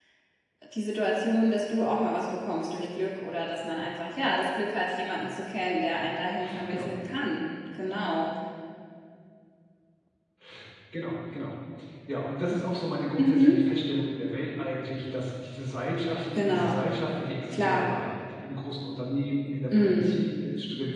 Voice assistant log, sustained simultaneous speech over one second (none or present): none